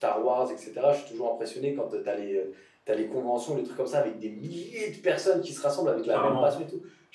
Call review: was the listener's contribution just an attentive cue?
Yes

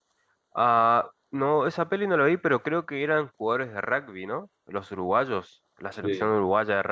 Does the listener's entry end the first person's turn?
No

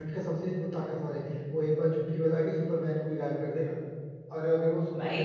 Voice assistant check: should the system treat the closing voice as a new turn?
No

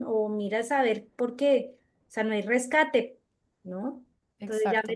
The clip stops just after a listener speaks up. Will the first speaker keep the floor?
Yes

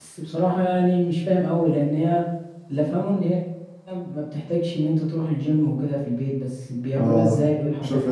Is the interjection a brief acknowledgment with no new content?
No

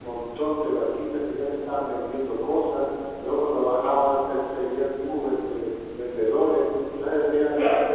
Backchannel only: Yes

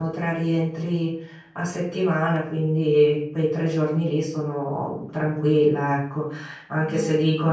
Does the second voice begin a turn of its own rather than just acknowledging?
No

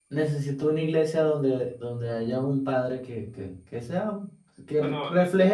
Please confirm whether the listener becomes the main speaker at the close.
No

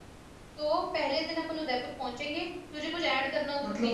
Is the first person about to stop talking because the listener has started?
Yes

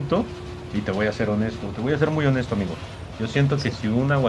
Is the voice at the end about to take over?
No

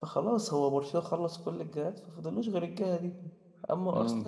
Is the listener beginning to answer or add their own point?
No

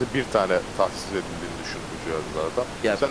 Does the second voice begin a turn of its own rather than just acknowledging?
No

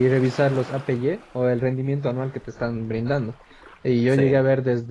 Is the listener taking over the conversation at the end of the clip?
No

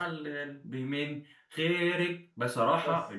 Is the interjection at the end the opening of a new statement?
No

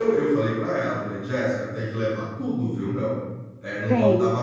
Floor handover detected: No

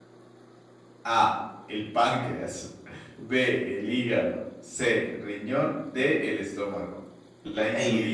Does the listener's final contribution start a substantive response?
Yes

